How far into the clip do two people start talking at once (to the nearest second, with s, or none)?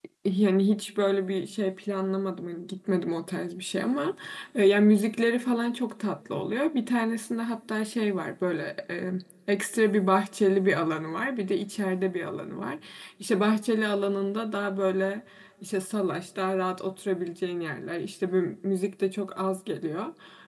none